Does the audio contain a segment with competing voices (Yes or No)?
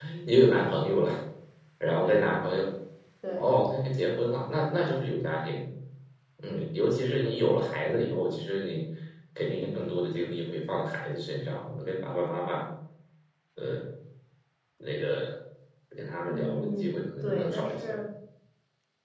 Yes